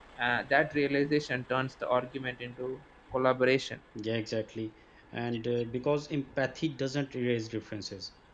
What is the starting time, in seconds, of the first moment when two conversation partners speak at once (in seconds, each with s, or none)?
none